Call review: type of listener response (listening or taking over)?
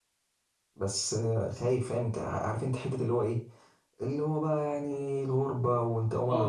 taking over